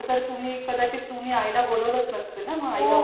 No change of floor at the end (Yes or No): No